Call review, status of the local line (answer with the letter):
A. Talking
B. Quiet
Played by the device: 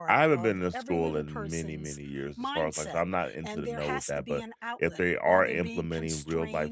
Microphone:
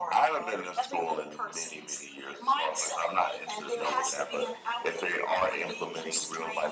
B